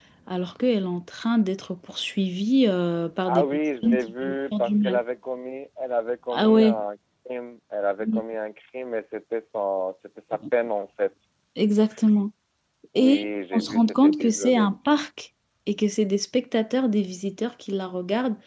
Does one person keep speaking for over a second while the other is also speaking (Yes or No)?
Yes